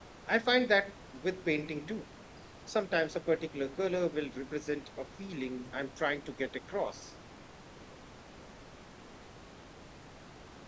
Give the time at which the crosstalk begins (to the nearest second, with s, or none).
none